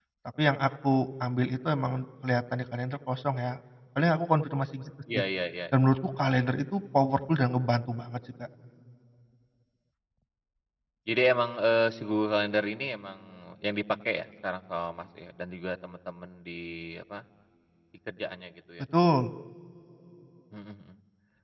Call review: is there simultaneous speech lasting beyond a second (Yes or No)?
No